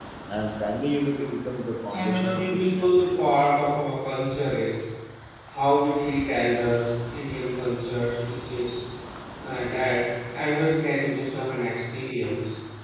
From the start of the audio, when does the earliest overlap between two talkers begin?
1.9 s

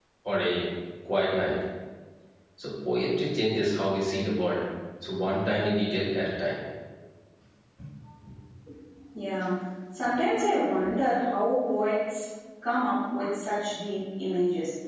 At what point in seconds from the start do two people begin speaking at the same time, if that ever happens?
none

